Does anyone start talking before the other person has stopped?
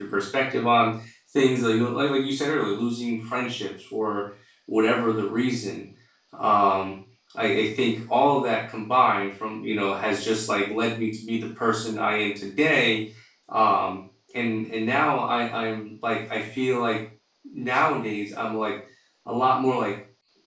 No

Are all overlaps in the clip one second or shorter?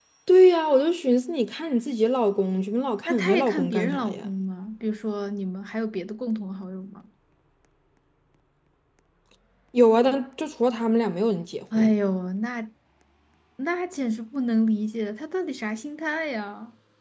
No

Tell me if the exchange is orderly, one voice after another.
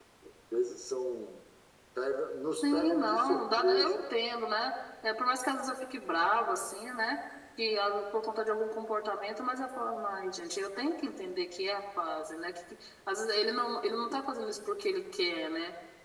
No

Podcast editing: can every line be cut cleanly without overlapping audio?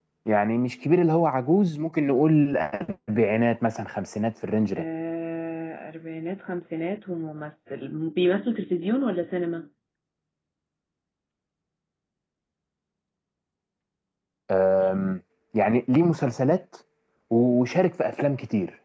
Yes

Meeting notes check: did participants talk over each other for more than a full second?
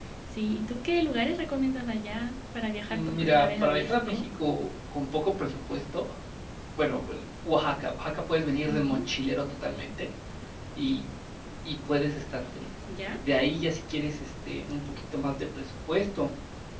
Yes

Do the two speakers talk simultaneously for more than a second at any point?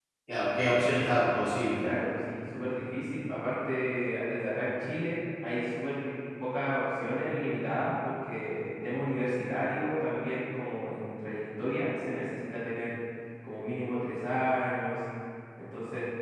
No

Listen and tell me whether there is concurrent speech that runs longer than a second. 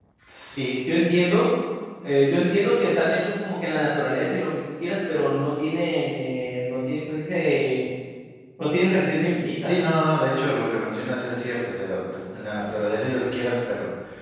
No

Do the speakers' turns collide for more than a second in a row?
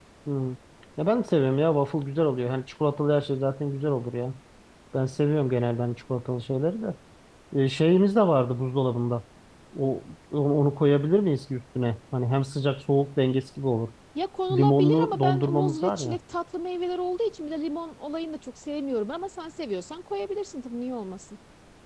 Yes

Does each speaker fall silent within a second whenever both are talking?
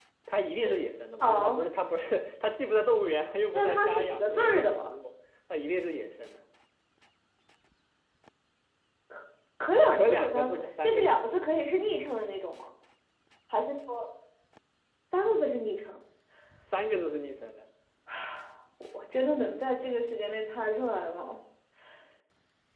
No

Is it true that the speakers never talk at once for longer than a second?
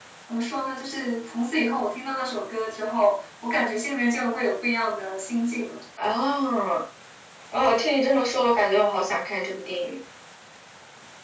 Yes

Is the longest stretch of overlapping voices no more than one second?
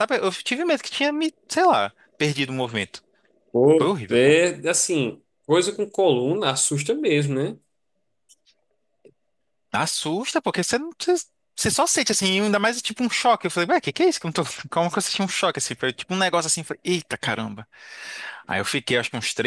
Yes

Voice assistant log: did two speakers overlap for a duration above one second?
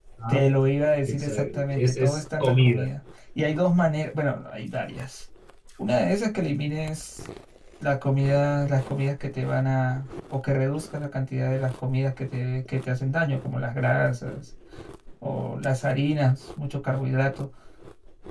Yes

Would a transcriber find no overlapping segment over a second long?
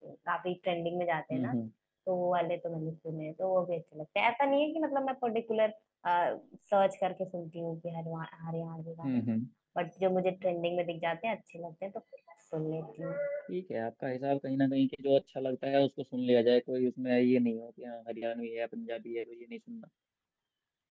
Yes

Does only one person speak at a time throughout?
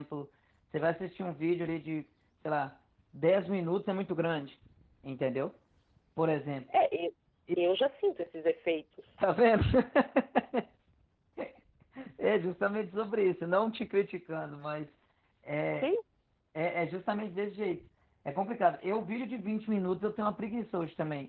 Yes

